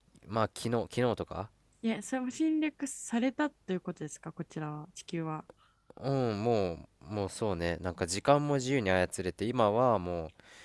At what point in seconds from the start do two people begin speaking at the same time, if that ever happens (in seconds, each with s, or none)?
none